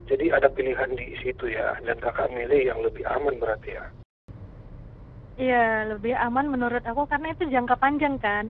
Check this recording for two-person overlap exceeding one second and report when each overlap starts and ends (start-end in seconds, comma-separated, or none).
none